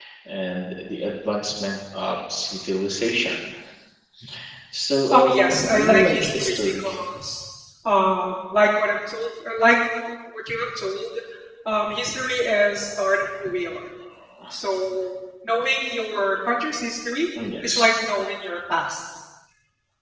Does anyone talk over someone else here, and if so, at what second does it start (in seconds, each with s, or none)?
5.1 s